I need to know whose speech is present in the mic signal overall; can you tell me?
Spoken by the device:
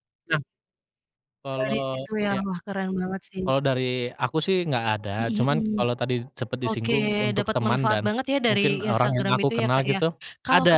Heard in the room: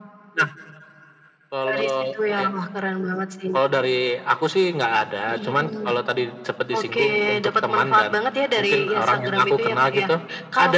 echo only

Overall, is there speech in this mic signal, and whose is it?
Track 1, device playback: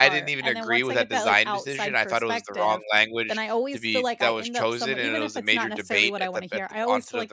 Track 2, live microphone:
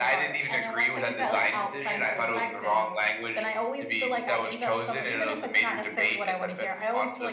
echo only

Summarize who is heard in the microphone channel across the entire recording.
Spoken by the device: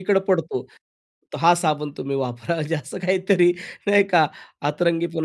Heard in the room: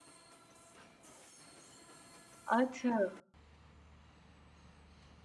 user only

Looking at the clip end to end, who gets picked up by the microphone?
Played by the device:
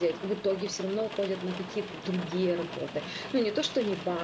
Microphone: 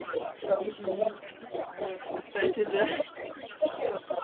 both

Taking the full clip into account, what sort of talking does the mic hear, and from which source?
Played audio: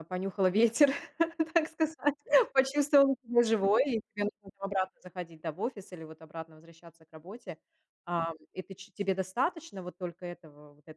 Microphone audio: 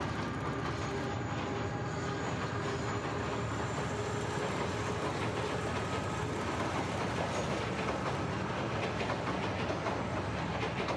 neither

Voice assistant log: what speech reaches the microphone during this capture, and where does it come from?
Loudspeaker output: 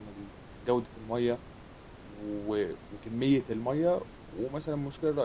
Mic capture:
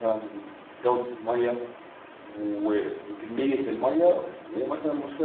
echo only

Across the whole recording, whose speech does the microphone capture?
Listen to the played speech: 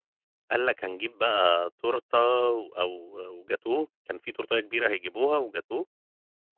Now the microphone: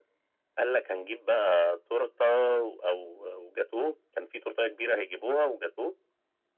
echo only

